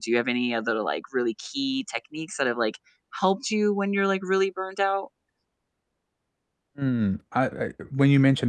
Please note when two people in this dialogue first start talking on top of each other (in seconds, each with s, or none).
none